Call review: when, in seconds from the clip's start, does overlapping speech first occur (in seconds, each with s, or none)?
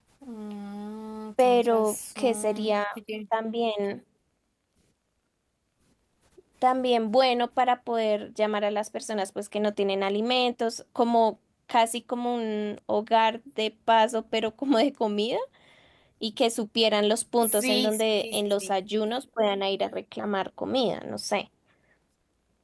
1.4 s